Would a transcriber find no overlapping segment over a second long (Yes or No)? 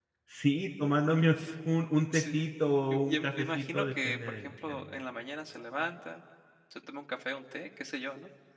No